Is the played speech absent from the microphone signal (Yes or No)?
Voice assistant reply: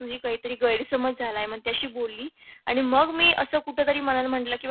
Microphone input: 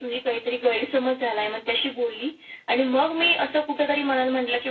No